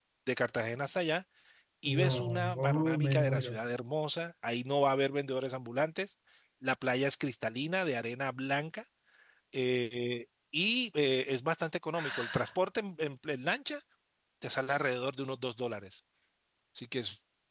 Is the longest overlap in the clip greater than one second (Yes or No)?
Yes